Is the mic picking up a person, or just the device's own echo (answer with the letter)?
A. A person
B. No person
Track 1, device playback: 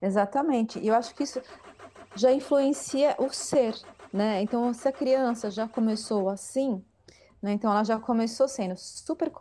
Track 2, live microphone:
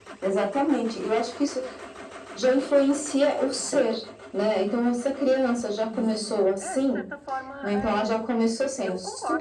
A